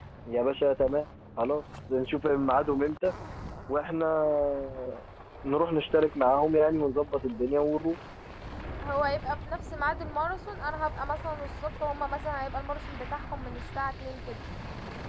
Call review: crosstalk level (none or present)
none